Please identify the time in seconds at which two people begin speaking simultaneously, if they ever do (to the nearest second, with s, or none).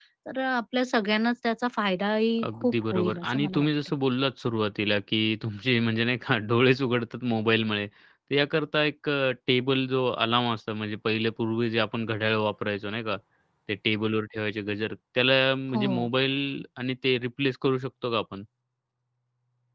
2 s